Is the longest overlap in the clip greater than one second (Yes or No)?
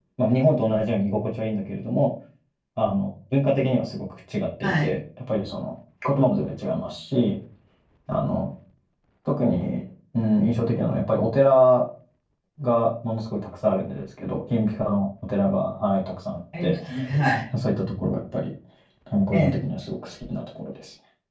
No